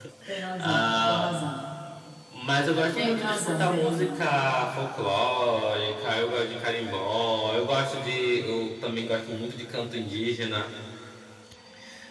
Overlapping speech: Yes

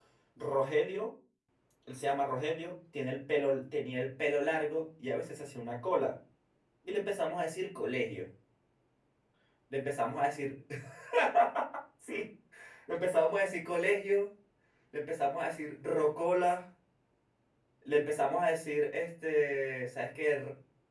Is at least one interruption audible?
No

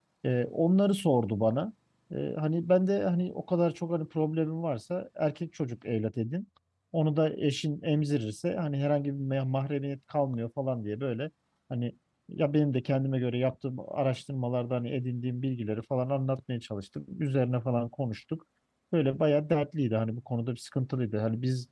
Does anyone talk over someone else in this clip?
No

